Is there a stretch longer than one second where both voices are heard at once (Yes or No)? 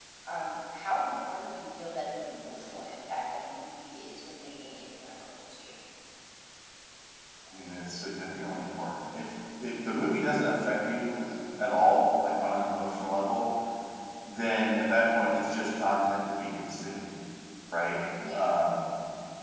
No